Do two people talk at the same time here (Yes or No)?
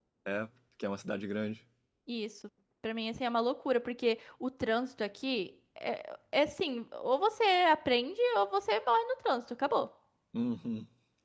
No